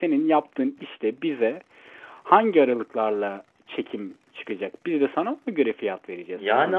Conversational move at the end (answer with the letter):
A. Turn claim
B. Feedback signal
A